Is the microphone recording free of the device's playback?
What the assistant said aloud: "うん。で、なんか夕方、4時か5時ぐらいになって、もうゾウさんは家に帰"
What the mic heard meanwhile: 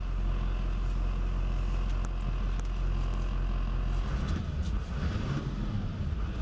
Yes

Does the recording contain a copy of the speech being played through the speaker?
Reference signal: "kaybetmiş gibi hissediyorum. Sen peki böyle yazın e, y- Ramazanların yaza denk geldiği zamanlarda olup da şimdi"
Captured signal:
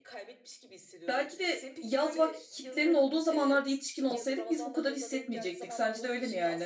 Yes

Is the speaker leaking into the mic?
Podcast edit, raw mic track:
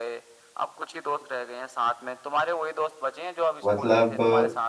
Yes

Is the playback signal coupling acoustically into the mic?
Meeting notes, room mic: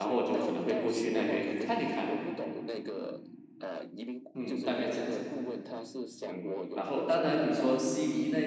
Yes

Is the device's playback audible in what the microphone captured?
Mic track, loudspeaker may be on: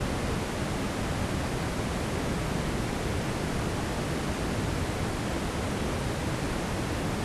No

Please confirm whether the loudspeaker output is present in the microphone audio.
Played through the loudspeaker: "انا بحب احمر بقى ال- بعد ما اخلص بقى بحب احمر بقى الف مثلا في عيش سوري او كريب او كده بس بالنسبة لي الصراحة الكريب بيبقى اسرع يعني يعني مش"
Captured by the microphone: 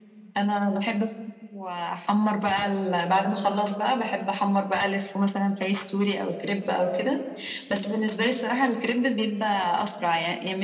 Yes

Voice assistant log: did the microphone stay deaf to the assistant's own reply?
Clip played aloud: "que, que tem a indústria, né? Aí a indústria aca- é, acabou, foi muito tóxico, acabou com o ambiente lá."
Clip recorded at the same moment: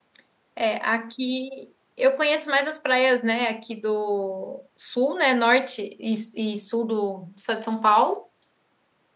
Yes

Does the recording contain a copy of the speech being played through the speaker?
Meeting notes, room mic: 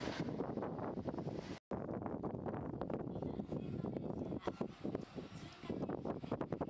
No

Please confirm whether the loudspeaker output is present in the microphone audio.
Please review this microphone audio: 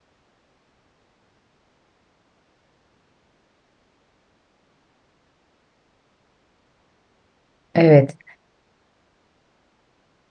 No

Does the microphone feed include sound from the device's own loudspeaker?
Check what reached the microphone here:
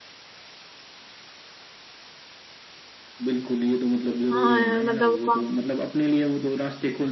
Yes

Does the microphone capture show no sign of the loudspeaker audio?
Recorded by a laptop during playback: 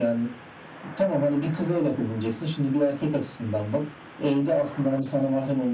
No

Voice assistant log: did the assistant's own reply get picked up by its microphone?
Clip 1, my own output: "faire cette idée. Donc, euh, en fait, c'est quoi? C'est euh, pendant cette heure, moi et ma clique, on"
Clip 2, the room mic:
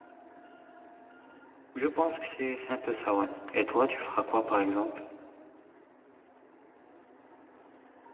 No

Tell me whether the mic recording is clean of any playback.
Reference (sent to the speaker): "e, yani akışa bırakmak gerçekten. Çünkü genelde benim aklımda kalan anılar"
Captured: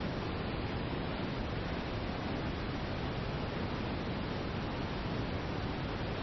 Yes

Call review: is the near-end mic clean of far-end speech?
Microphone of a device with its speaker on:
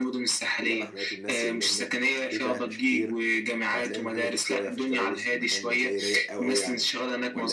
No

